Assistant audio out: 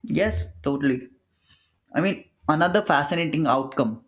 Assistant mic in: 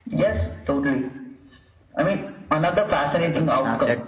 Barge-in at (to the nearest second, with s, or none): 3 s